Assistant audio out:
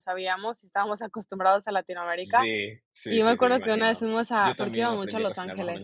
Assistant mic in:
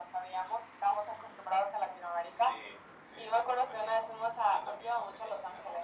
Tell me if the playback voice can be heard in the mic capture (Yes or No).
Yes